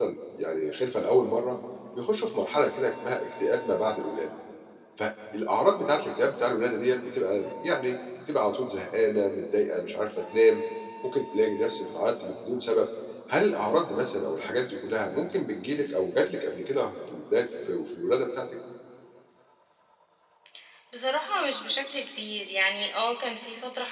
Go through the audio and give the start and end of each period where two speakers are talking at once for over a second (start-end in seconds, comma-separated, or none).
none